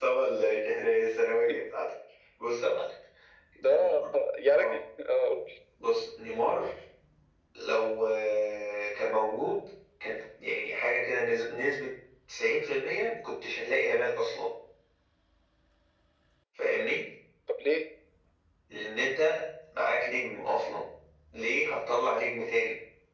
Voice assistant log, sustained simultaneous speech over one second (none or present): none